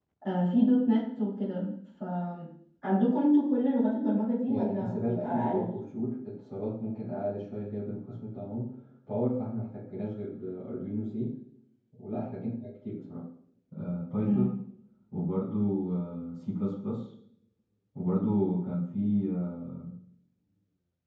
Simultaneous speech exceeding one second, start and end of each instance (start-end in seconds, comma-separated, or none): 4.5-5.7